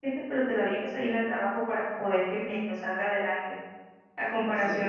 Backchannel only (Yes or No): Yes